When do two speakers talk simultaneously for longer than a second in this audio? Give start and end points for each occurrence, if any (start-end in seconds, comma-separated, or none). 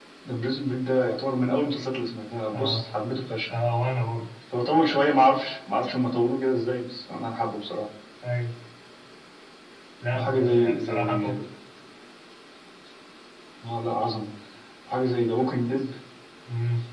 10.1-11.4